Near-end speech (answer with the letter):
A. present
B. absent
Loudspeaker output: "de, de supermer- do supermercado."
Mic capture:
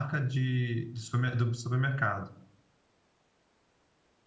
B